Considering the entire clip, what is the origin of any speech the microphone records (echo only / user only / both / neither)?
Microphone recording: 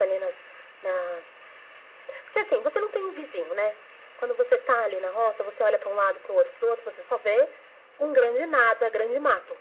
echo only